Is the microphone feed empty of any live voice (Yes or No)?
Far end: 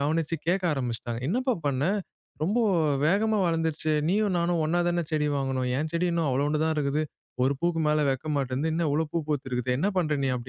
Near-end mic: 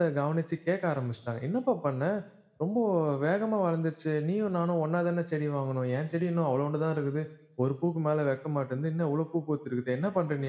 Yes